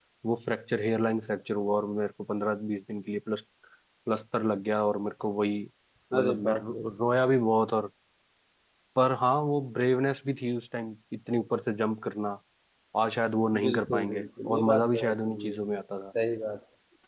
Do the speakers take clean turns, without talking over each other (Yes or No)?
No